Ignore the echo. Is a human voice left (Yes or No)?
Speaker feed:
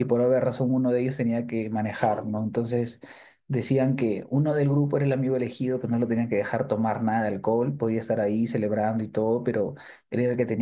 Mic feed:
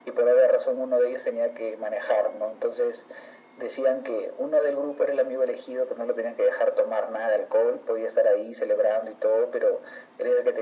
No